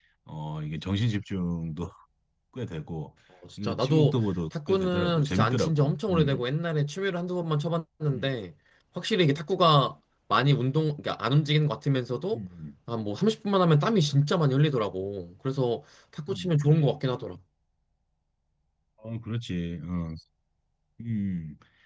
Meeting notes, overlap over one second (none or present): present